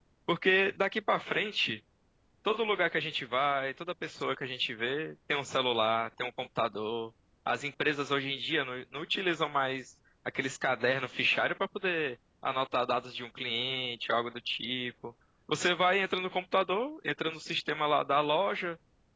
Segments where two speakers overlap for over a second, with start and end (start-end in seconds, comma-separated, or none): none